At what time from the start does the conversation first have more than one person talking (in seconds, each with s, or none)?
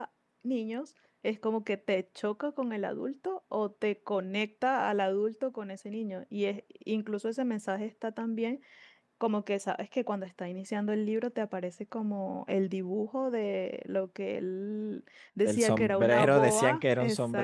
15.4 s